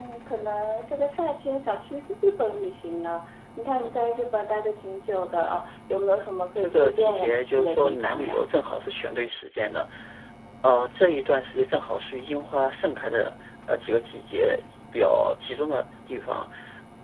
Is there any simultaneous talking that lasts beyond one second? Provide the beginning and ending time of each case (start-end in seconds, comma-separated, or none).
6.5-8.4